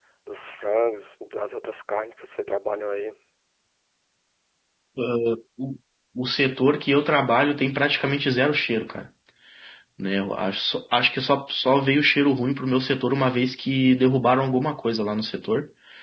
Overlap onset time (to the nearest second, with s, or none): none